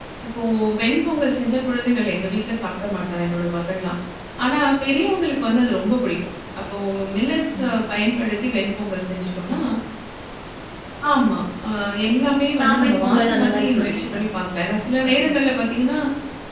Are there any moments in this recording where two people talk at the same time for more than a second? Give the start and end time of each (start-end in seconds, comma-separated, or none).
12.6-14.2